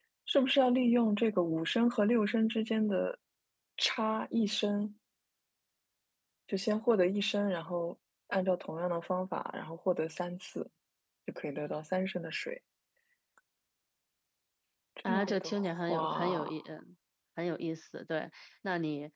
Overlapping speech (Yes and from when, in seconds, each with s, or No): Yes, from 15.1 s